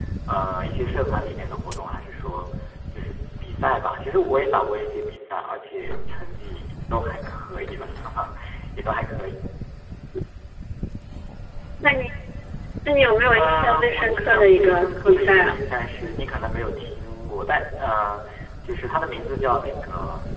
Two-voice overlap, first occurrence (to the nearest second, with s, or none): 13 s